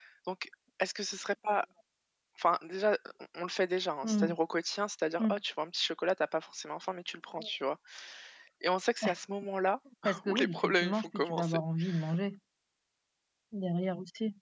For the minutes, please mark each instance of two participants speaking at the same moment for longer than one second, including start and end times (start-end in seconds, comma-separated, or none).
10.2-11.6